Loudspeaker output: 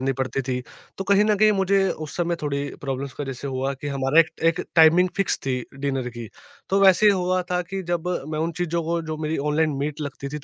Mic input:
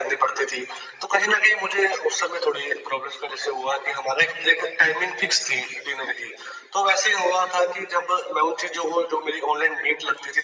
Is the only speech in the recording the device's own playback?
Yes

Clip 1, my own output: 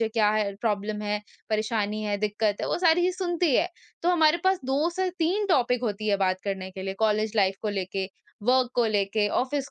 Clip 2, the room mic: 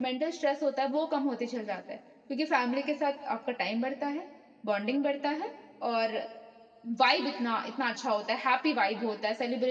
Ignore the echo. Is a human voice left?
Yes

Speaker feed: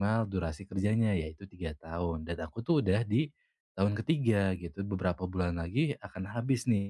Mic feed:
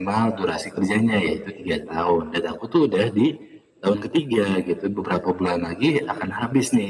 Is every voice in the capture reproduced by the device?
Yes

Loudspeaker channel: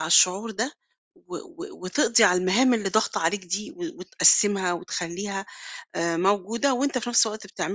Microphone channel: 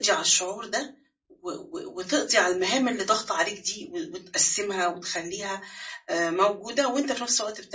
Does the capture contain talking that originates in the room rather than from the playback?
No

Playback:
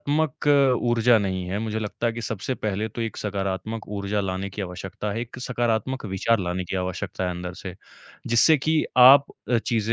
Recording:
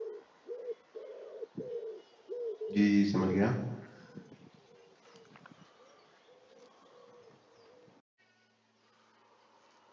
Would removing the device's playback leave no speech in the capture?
No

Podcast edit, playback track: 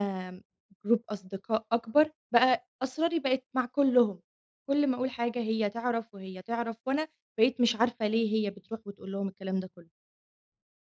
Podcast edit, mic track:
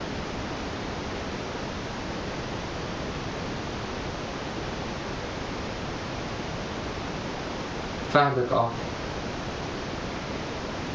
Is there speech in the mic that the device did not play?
Yes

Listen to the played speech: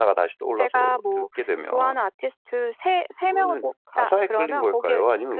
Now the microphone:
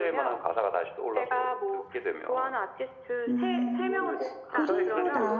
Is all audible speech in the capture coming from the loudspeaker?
No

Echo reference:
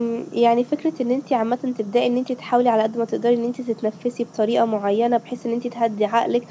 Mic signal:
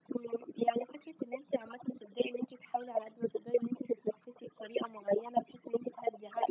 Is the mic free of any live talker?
Yes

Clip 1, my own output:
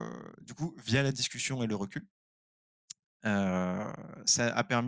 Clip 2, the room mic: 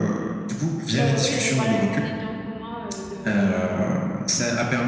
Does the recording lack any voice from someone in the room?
No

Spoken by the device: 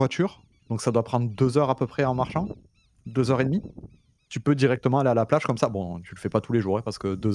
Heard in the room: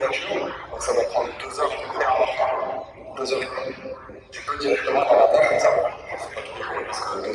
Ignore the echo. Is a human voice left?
No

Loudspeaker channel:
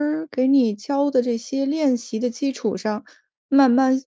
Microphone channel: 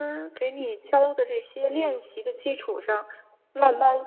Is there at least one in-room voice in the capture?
Yes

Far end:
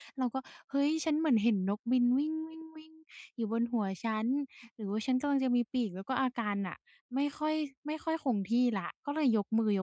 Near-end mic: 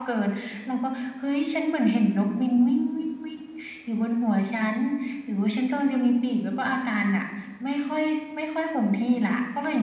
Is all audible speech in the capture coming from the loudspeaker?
Yes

